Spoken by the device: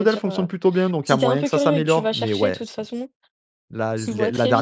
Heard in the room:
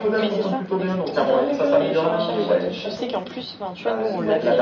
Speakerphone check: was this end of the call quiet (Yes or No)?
No